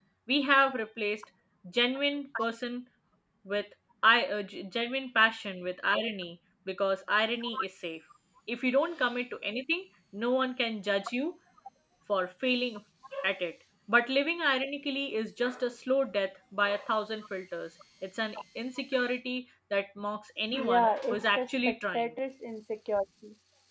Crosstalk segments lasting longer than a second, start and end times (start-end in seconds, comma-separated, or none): 20.6-22.1